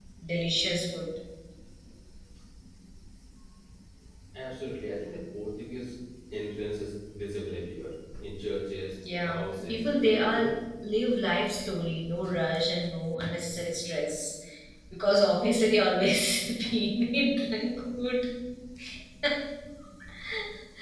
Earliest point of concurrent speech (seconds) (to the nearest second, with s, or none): 9 s